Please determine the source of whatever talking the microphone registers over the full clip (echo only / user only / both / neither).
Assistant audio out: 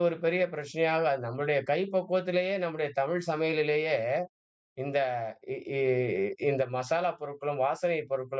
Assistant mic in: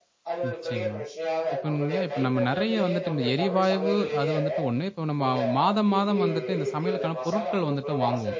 both